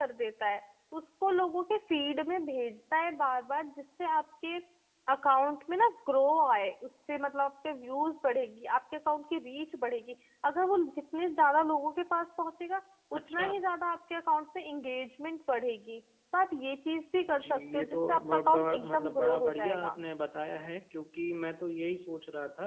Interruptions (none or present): present